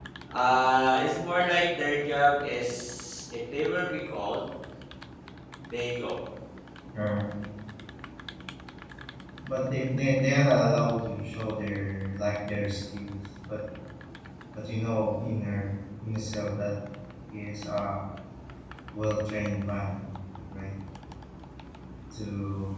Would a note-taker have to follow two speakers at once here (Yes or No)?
No